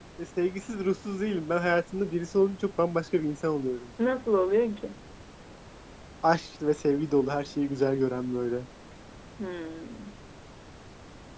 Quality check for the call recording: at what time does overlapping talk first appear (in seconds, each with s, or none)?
none